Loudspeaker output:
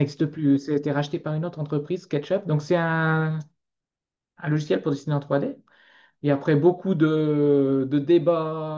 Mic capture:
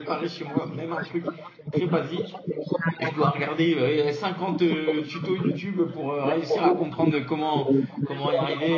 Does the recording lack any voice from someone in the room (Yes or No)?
No